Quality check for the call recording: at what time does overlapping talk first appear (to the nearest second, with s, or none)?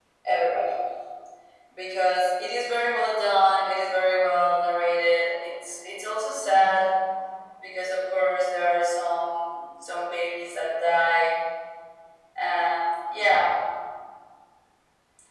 none